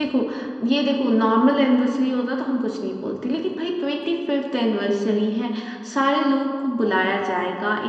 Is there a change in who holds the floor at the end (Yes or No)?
No